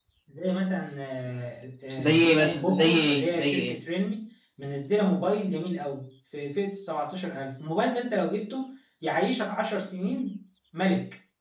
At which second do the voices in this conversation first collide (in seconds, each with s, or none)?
1.9 s